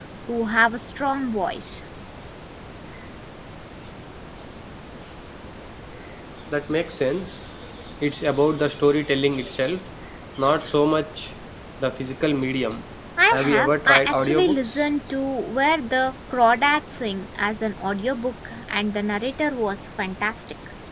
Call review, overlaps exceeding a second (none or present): present